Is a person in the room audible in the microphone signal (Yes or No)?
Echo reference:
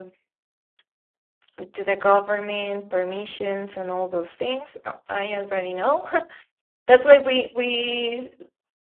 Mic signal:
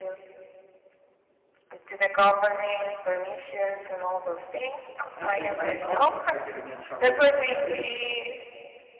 Yes